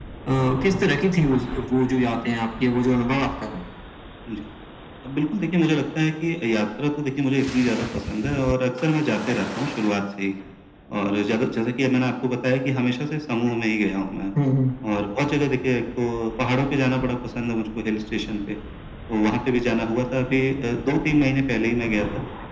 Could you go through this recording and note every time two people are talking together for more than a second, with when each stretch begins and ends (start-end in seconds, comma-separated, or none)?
none